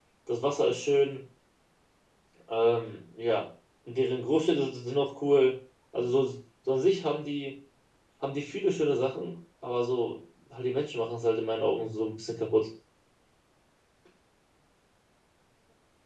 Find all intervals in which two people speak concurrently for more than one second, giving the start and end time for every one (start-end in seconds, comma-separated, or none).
none